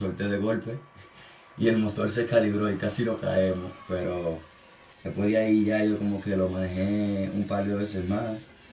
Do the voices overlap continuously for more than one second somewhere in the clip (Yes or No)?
No